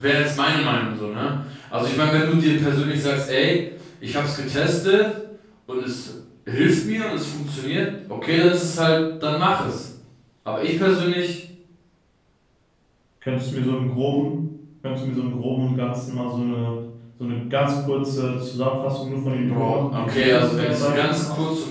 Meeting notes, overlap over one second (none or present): present